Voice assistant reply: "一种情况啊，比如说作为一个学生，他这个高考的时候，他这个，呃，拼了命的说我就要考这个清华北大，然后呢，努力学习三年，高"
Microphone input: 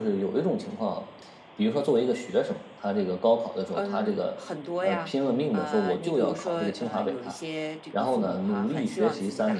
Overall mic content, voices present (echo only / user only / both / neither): both